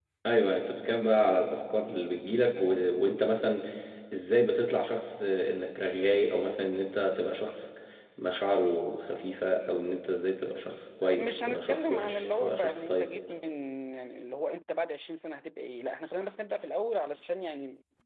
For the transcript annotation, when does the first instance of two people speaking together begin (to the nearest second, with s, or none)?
11 s